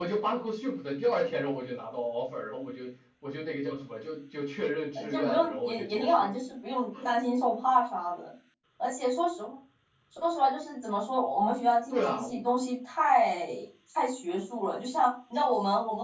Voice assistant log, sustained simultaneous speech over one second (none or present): present